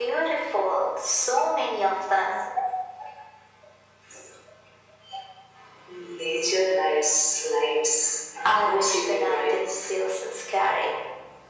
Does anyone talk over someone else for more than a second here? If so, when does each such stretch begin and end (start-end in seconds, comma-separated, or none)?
8.4-9.8